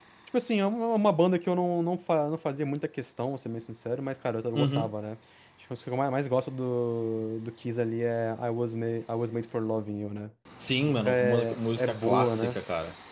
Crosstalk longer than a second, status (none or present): present